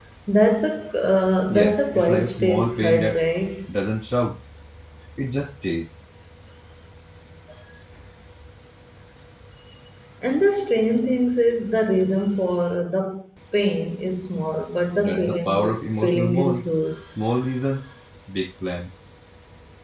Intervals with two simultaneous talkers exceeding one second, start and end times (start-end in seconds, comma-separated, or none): 1.5-3.2, 15.0-16.7